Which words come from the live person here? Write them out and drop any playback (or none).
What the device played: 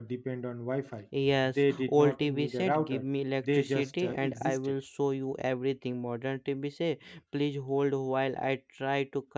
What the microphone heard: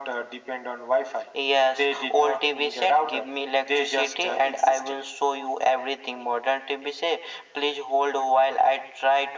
none